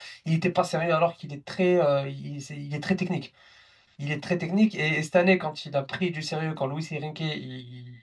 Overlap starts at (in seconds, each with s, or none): none